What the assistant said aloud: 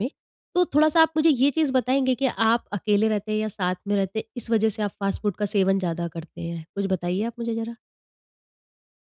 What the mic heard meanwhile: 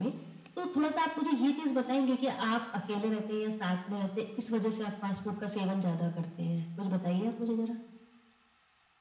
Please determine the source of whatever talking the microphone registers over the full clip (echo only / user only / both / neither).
echo only